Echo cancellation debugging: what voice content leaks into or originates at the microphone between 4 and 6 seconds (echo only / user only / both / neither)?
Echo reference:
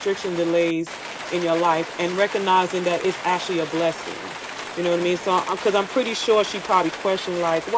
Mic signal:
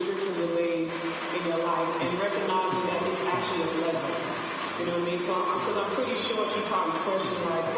both